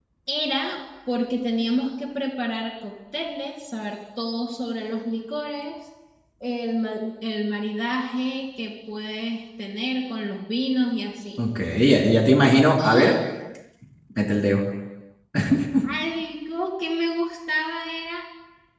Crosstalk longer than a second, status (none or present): none